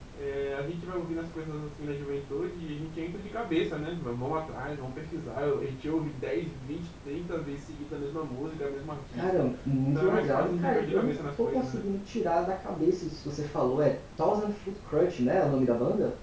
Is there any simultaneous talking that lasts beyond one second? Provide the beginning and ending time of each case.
9.9-11.8

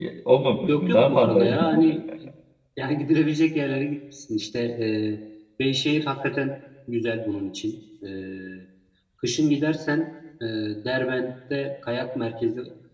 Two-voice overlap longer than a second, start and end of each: 0.7-1.9

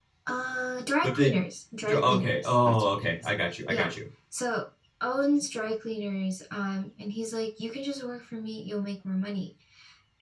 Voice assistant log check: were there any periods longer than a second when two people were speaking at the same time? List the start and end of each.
1.9-3.2

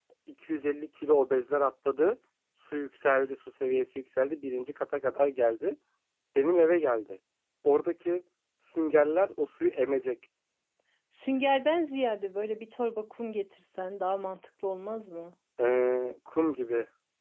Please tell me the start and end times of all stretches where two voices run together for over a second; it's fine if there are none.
none

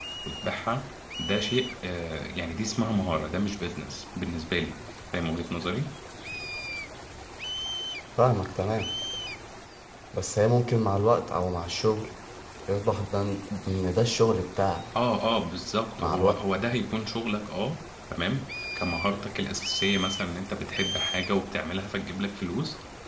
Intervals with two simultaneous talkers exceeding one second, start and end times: none

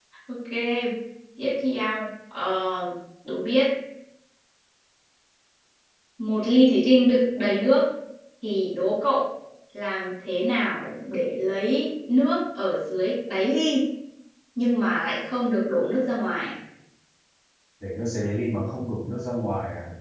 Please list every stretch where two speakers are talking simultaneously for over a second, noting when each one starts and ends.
none

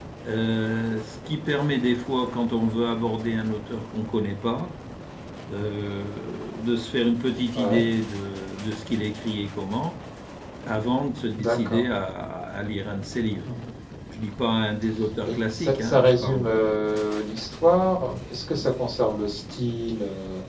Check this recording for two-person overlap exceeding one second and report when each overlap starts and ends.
15.2-17.0

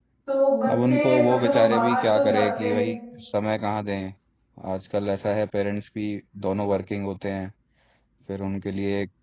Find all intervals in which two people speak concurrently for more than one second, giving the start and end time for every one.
0.7-2.9

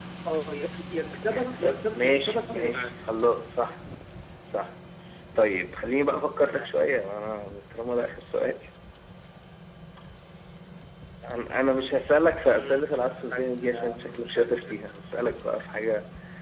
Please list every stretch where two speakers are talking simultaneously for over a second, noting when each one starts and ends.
1.3-2.9, 12.4-14.9

